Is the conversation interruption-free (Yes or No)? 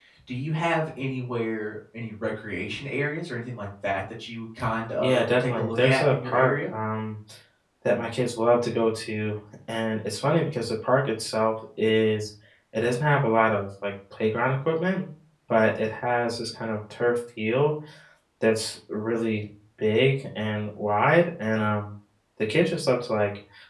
No